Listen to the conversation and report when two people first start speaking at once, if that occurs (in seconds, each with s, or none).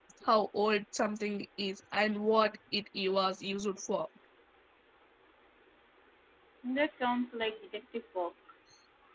none